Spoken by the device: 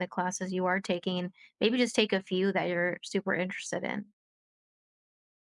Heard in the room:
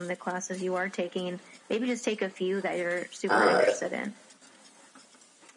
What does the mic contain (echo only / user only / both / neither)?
both